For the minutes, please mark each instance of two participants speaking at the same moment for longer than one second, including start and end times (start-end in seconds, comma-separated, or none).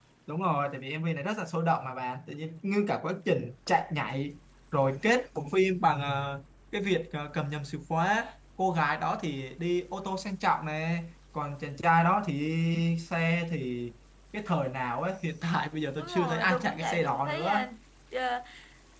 16.0-17.6